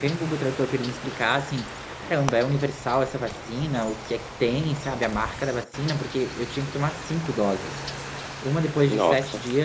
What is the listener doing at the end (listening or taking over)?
listening